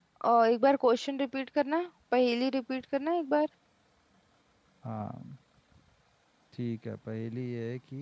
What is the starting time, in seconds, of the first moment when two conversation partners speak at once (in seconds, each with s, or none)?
none